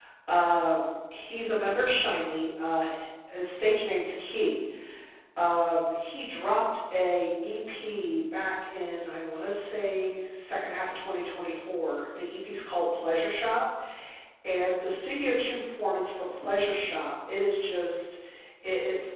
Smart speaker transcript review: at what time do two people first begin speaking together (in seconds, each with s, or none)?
none